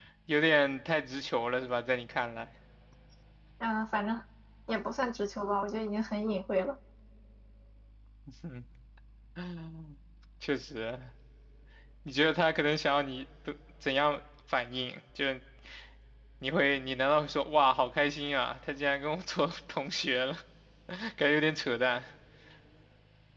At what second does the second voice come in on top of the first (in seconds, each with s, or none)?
none